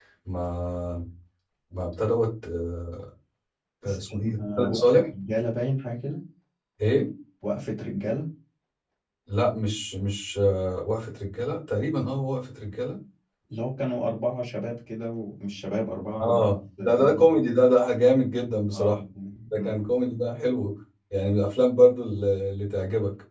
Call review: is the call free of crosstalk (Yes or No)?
No